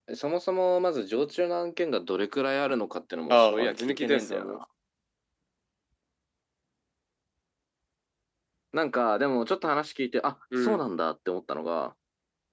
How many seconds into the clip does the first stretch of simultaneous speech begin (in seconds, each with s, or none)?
3.3 s